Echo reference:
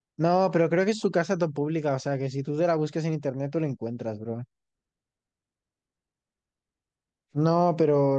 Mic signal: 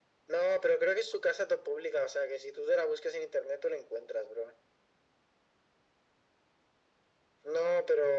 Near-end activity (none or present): none